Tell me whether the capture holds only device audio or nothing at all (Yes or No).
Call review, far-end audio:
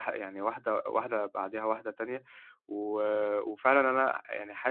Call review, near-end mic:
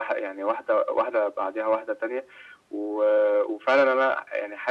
Yes